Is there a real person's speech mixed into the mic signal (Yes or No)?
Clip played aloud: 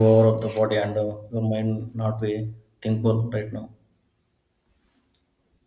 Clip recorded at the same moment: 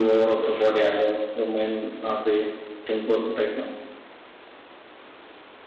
No